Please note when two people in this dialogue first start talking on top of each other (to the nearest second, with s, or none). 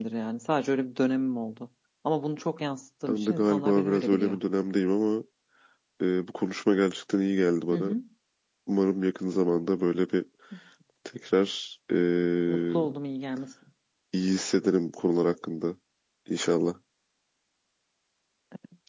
3 s